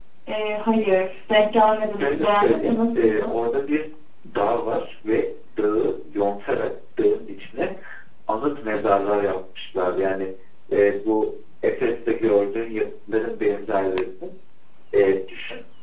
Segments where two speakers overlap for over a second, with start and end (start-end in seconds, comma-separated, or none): 2.0-3.4